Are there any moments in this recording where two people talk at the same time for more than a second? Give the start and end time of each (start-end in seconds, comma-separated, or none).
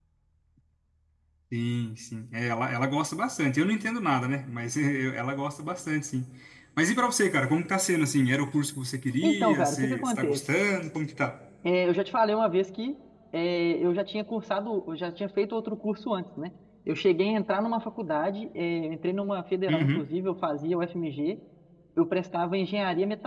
9.2-10.5